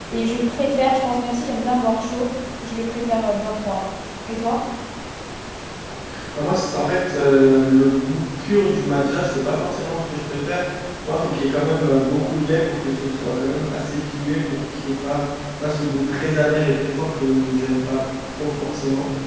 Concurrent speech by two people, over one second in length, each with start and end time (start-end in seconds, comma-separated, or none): none